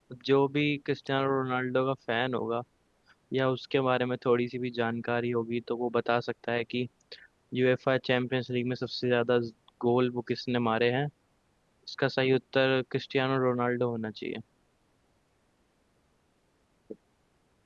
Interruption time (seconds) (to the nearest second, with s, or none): none